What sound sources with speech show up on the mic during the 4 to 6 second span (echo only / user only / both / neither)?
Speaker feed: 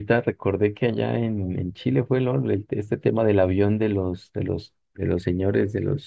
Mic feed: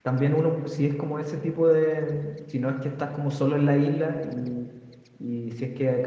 user only